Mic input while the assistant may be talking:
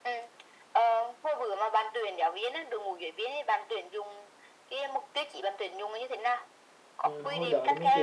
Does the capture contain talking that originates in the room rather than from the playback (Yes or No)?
Yes